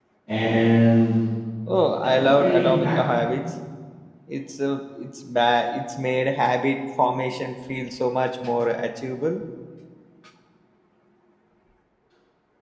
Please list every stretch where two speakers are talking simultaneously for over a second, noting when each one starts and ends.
2.0-3.2

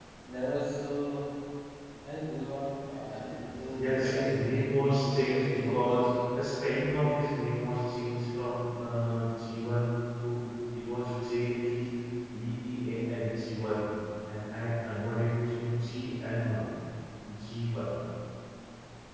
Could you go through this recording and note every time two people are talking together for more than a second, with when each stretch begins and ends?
3.7-6.0

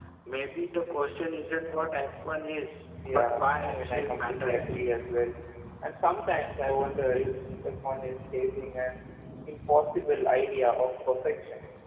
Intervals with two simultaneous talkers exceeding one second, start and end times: 3.1-4.6

